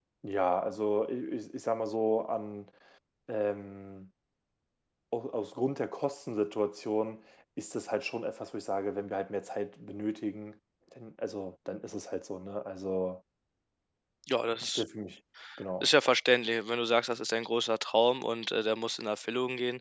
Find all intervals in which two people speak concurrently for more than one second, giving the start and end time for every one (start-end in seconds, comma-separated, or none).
none